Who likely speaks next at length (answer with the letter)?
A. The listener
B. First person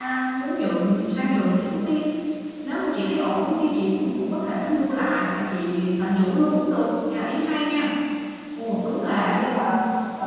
A